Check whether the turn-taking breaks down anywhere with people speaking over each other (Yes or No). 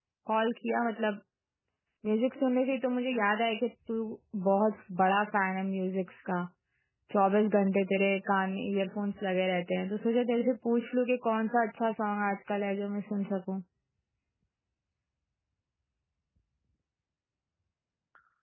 No